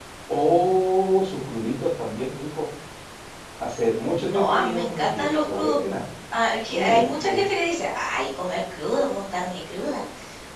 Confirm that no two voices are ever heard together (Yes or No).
No